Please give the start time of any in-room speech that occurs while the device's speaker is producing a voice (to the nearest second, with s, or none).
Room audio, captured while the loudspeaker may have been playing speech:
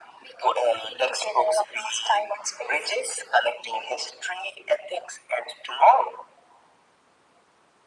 none